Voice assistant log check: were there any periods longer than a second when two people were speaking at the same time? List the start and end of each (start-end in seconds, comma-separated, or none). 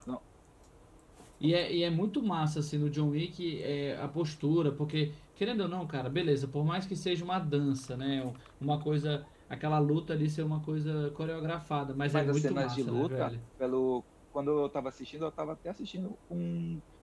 12.1-13.3